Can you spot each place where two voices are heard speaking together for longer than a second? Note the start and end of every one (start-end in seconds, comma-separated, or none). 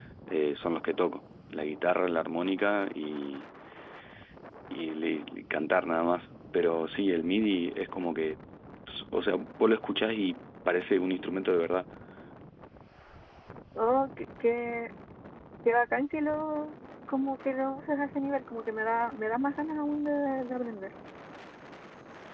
none